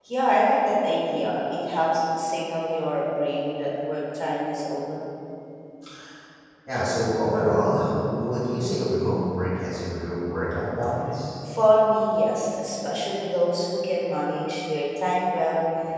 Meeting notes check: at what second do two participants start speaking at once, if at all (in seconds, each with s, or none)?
none